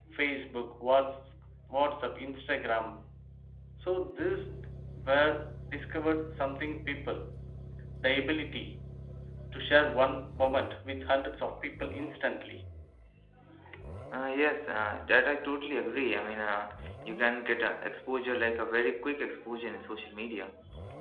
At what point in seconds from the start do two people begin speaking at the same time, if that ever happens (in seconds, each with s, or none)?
none